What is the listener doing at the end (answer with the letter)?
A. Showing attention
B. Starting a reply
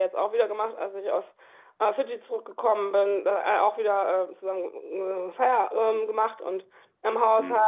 A